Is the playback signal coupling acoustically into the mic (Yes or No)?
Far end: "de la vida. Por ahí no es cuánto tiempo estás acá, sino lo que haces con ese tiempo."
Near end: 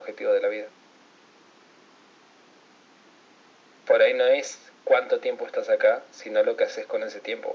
Yes